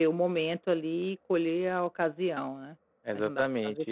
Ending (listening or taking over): taking over